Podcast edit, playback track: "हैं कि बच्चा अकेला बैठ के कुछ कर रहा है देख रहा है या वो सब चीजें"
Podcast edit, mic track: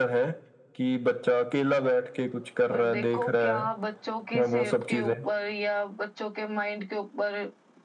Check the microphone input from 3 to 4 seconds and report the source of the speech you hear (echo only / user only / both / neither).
both